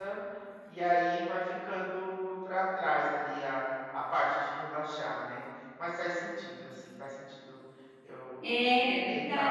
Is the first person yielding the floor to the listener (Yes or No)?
Yes